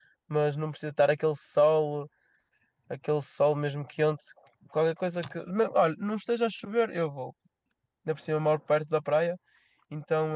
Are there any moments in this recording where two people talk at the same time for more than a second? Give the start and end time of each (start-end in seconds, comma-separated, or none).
none